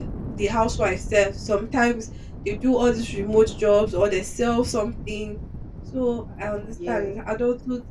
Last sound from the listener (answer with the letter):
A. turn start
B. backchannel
B